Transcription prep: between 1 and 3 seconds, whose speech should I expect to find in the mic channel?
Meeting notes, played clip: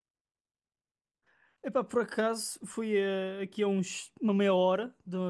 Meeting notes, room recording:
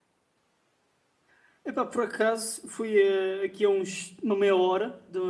echo only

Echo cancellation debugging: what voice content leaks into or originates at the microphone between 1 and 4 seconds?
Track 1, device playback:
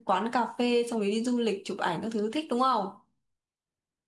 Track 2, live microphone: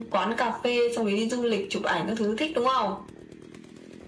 echo only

